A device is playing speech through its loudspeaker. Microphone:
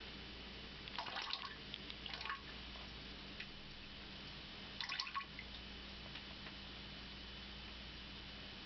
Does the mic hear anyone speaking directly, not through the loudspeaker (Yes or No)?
No